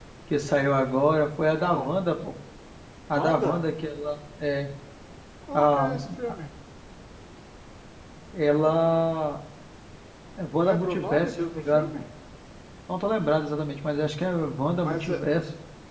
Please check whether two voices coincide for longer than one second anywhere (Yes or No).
Yes